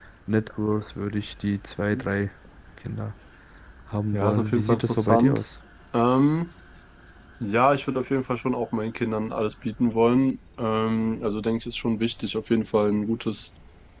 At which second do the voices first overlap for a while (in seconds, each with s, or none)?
4.1 s